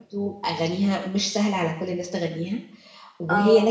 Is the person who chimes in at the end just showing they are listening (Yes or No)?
Yes